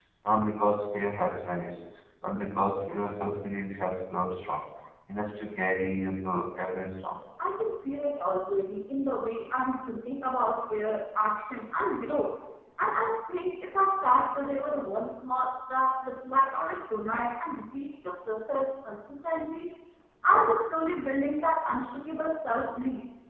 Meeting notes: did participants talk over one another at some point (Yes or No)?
No